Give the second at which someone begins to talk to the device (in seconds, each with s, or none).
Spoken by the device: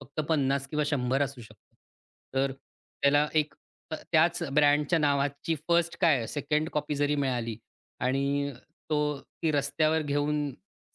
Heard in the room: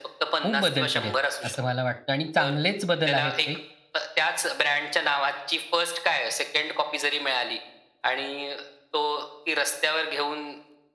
0.4 s